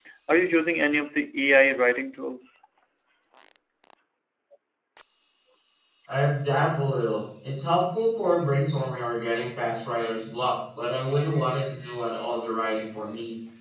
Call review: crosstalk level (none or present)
none